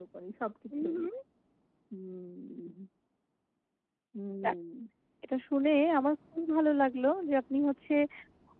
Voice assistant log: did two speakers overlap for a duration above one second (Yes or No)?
No